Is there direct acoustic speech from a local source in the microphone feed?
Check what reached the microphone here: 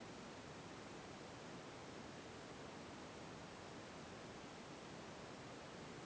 No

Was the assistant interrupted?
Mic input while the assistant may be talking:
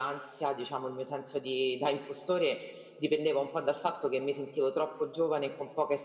No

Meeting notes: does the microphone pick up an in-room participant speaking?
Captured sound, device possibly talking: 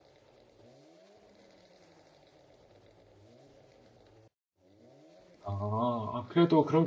Yes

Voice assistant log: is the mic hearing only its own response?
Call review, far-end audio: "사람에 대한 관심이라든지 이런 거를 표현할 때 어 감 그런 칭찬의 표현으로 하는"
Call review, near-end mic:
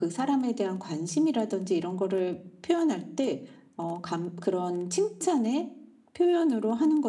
Yes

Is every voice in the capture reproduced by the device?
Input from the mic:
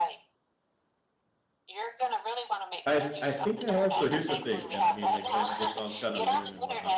No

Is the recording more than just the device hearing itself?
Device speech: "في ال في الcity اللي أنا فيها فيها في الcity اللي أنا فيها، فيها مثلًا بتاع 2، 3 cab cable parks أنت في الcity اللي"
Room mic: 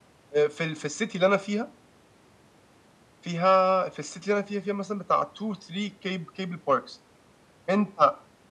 No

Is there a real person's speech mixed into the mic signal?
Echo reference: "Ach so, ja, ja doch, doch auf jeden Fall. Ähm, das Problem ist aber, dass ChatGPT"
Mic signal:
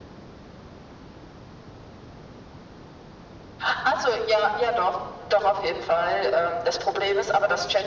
No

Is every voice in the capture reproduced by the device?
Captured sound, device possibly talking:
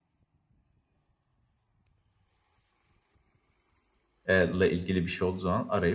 No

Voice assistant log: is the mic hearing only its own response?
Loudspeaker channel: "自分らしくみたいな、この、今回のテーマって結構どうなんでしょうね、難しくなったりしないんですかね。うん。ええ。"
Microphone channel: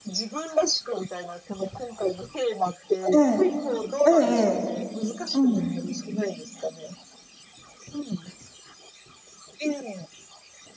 No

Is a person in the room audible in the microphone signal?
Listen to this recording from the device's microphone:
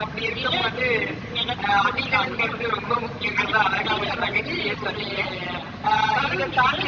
No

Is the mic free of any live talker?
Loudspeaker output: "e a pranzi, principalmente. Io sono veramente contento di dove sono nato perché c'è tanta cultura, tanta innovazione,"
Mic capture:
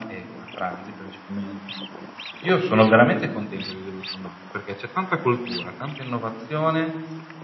Yes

